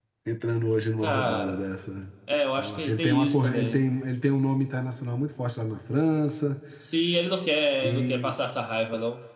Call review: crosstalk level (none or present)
present